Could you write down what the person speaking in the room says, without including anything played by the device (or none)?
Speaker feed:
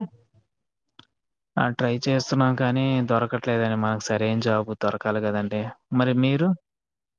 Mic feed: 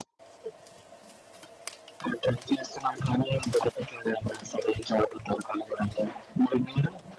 none